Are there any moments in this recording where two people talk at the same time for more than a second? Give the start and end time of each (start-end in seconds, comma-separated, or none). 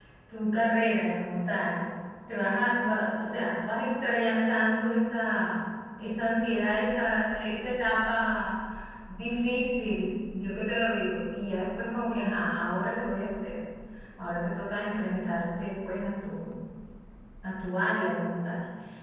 none